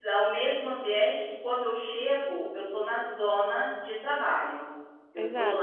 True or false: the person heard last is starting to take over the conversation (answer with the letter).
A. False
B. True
B